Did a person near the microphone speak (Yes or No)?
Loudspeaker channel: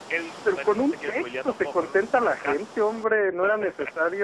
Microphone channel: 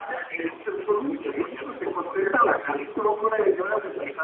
No